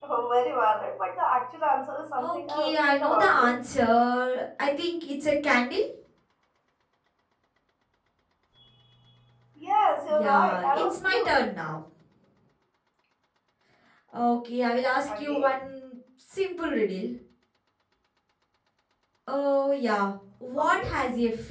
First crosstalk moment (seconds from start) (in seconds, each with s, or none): 2.2 s